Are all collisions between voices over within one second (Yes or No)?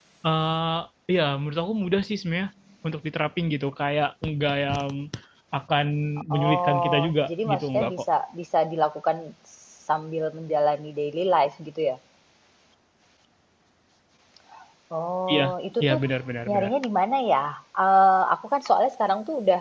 No